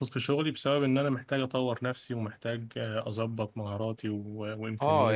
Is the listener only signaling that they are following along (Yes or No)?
No